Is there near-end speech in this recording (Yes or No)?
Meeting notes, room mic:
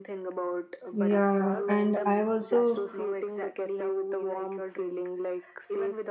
Yes